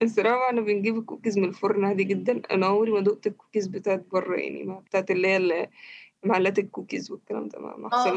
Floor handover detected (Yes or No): Yes